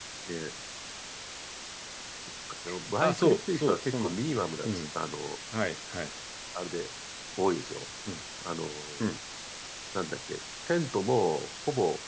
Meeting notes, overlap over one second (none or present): present